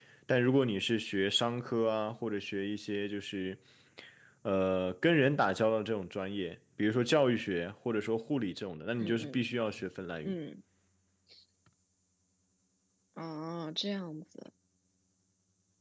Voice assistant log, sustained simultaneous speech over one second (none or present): none